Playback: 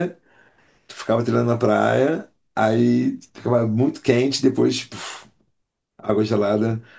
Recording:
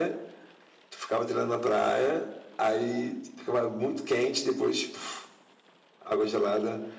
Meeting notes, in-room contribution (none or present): none